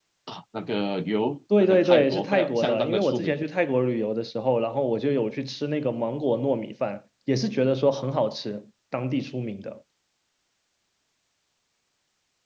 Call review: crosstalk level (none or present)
present